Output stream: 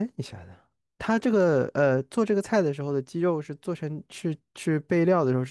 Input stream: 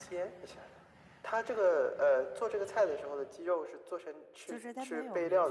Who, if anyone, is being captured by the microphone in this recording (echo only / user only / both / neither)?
both